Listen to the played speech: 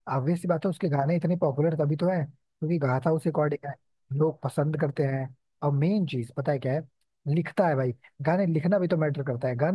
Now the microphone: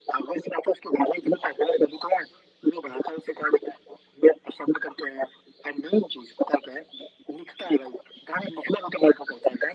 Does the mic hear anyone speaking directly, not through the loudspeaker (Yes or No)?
No